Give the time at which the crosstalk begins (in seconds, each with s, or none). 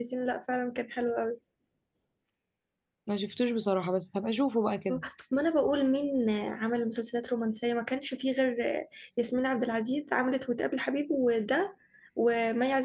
none